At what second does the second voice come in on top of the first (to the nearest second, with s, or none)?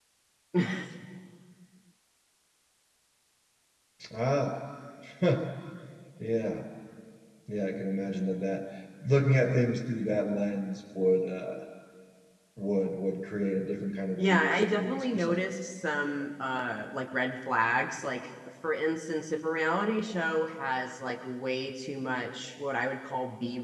14 s